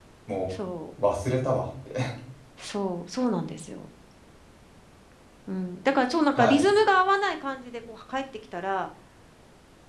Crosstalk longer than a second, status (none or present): none